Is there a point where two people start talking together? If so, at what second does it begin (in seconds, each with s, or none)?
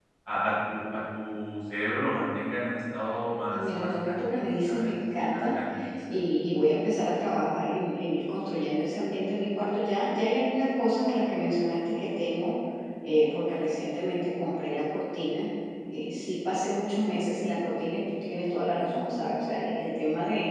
3.5 s